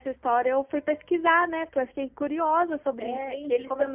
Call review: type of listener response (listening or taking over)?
taking over